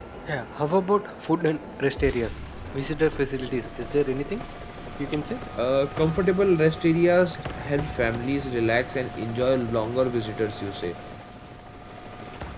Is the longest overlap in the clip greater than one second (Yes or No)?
No